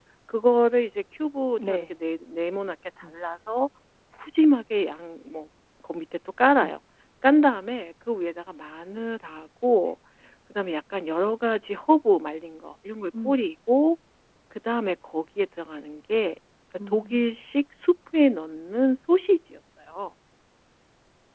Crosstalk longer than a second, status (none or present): none